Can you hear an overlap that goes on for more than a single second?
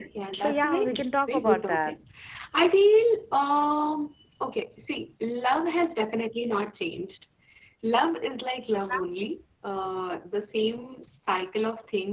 Yes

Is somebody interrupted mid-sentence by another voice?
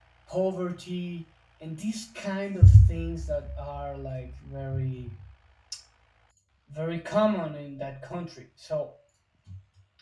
No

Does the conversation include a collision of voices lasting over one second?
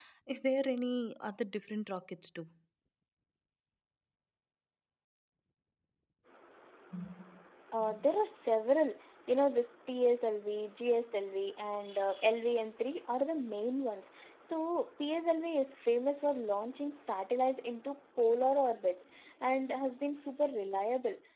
No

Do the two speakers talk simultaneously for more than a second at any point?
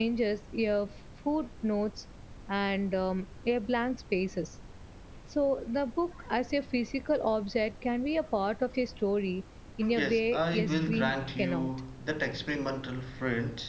Yes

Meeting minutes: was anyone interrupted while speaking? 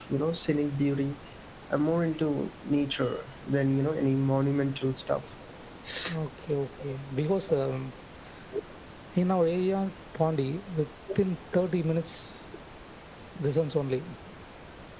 No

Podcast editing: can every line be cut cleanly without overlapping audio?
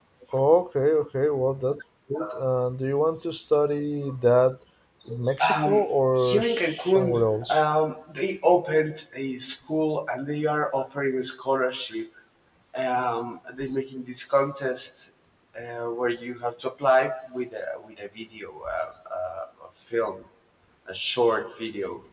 No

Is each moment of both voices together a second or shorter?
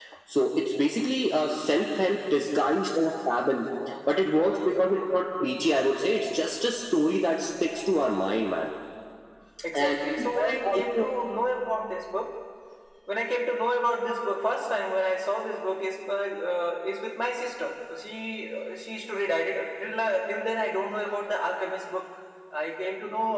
No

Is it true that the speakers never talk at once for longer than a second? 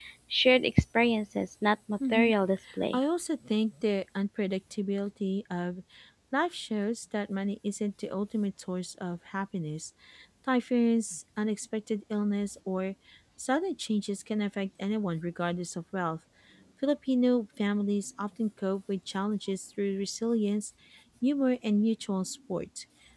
Yes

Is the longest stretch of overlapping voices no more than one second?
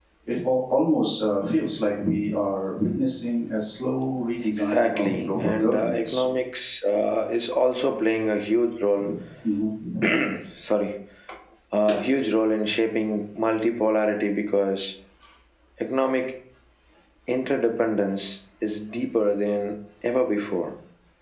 No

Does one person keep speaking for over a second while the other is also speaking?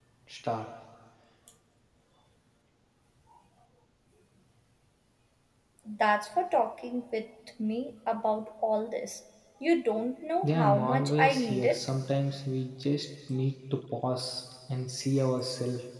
Yes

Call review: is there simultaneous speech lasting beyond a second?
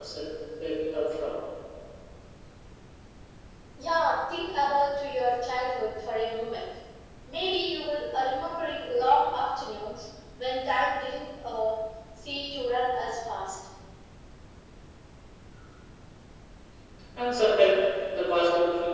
No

